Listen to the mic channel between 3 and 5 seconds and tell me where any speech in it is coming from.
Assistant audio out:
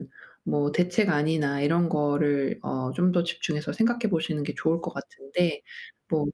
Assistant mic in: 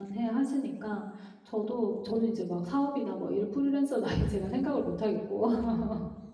user only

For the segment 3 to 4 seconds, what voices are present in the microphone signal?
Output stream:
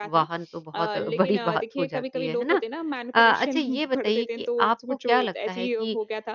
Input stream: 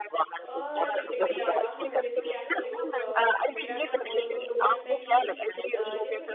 both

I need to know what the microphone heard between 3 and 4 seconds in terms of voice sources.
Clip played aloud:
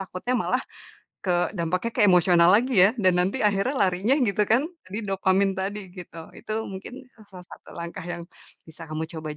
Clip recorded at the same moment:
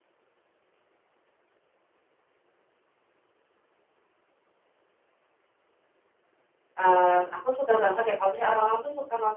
neither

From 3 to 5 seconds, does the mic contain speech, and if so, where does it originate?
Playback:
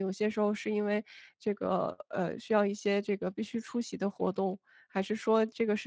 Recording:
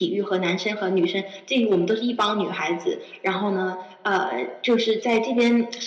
user only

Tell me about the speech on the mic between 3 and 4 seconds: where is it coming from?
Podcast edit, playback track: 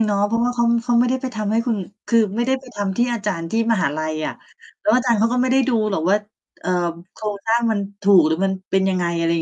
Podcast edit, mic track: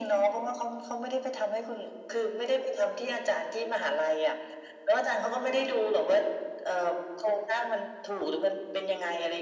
echo only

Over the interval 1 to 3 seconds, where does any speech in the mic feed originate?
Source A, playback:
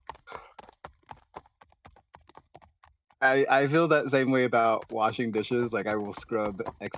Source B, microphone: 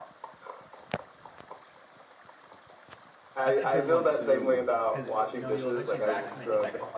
neither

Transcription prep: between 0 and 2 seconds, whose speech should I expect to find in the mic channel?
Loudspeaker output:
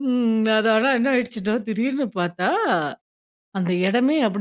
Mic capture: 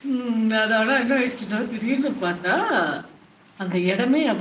echo only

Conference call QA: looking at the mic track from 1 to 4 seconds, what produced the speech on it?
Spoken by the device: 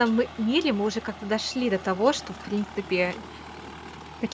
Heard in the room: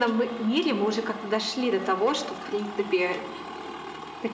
echo only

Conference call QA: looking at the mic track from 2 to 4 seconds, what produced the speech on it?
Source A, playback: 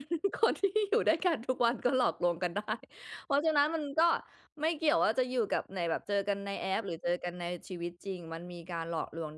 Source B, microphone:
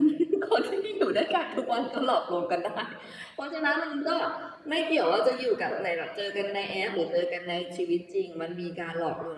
echo only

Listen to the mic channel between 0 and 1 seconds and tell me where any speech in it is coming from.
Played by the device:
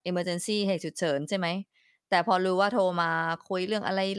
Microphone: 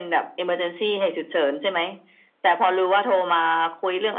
echo only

